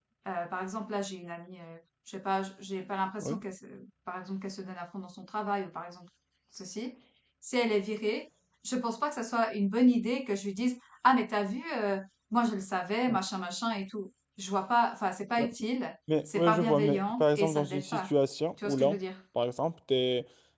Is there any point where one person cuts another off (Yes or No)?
Yes